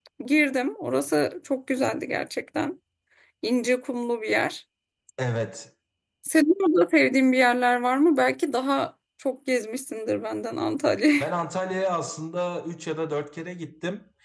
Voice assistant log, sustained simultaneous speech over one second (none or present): none